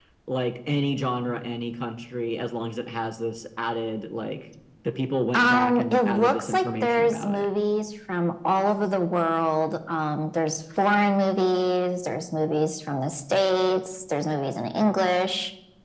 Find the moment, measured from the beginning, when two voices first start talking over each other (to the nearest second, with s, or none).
5 s